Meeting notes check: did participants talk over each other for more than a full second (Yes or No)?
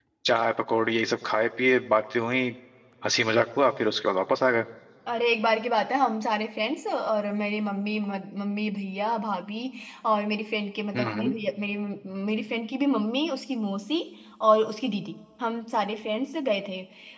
No